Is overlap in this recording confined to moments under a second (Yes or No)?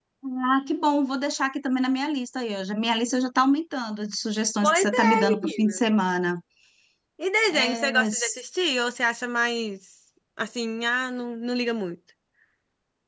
No